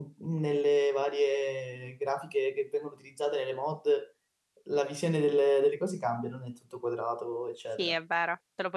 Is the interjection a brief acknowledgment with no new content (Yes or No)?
No